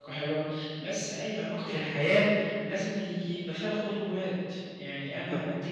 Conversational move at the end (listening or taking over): listening